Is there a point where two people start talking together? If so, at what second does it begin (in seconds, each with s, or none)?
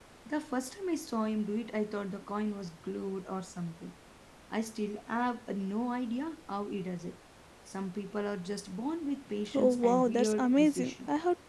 9.5 s